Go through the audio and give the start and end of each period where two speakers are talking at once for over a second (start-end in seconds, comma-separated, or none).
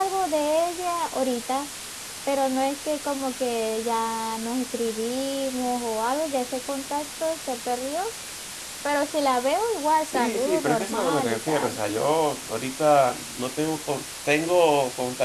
10.1-11.8